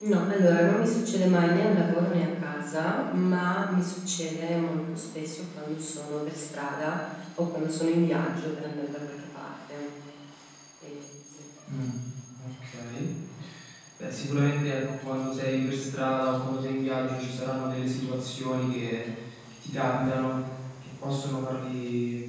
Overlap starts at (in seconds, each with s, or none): none